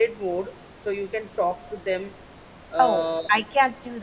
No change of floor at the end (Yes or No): No